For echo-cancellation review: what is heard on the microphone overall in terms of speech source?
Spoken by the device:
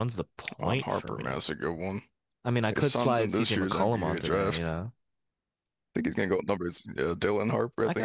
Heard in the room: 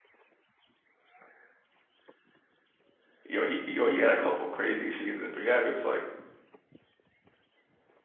user only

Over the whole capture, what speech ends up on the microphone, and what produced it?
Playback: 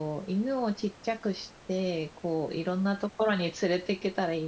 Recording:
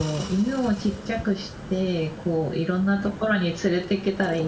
echo only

